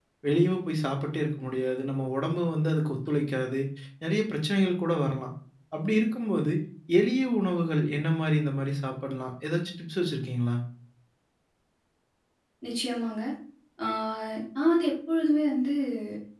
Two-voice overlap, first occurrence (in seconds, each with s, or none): none